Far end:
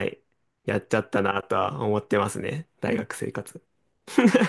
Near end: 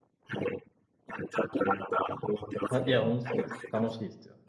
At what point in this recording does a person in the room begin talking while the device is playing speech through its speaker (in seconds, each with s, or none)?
2.7 s